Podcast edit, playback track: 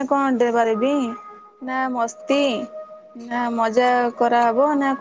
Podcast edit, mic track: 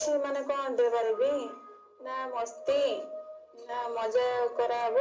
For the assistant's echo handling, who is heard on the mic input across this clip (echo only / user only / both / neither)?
echo only